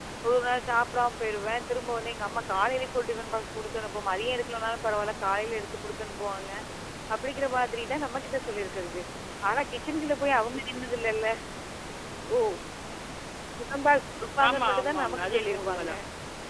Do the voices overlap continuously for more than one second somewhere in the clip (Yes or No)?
Yes